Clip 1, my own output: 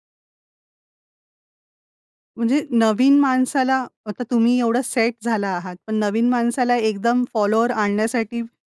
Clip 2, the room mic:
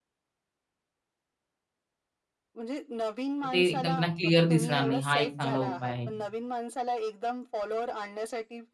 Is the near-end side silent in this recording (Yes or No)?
No